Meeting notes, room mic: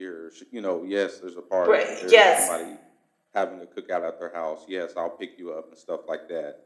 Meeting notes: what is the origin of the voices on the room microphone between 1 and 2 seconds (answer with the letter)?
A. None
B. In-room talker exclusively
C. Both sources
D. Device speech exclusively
C